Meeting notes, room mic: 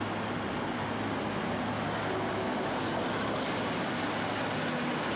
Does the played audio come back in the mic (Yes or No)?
No